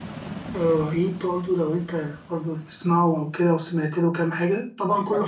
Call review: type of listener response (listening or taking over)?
taking over